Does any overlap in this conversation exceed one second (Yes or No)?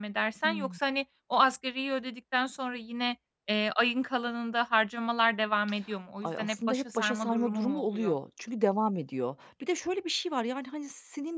Yes